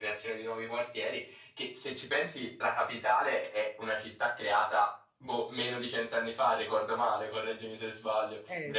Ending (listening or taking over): taking over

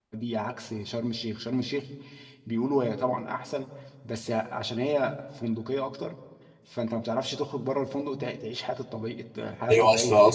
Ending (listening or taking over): taking over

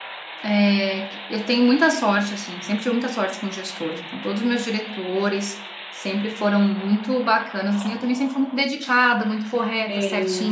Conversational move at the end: listening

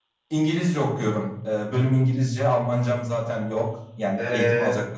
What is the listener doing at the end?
taking over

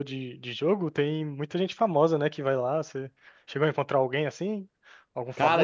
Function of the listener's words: taking over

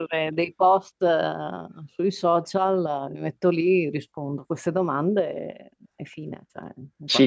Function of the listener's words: taking over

